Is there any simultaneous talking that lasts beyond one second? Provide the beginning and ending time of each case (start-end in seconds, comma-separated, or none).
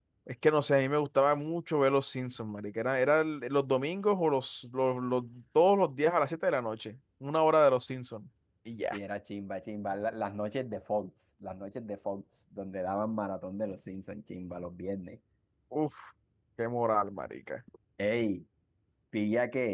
none